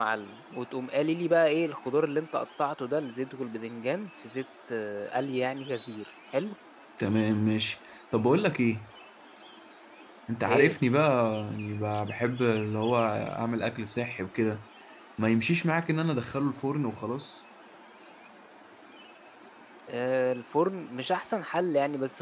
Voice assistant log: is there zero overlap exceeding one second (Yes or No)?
Yes